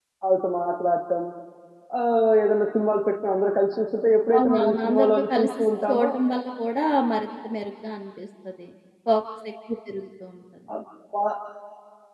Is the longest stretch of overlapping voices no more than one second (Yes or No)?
No